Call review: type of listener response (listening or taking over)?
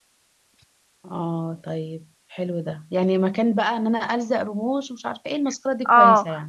taking over